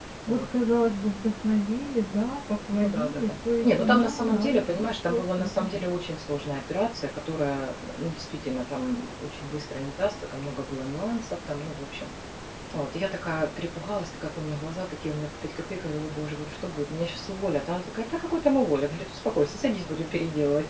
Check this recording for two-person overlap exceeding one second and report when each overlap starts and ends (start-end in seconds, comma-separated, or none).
2.7-5.7